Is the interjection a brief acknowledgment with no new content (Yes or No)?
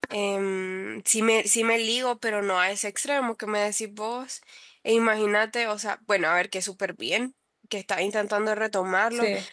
Yes